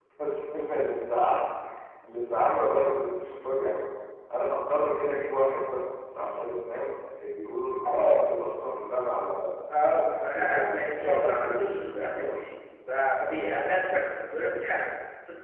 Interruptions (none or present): present